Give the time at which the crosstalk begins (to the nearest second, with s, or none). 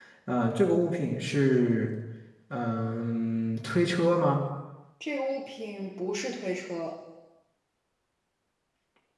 none